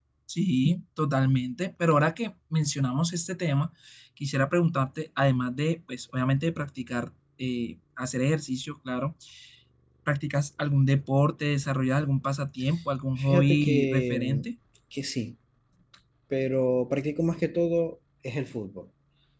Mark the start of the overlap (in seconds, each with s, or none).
13.2 s